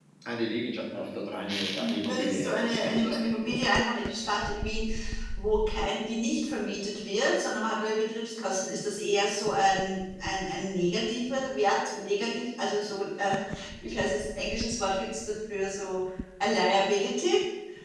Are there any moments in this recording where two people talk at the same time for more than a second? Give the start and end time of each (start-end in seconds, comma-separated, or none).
1.8-3.2